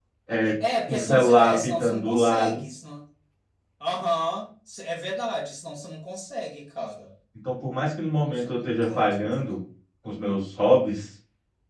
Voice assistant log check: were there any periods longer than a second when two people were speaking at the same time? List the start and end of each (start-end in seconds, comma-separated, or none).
0.8-2.6, 8.2-9.6